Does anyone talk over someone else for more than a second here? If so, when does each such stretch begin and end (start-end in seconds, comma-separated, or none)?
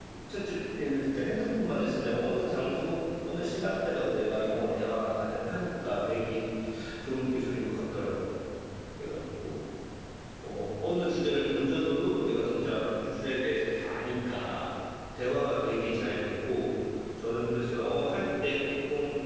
none